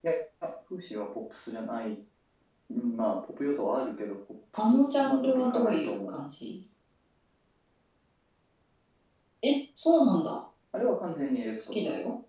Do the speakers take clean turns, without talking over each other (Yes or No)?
No